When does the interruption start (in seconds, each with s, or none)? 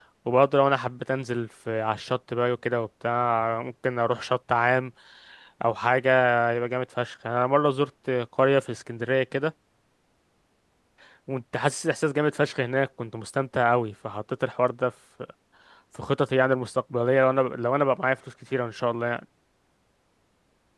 none